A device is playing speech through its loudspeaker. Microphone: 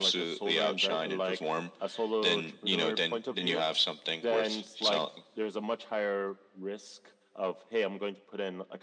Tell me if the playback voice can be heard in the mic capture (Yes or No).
Yes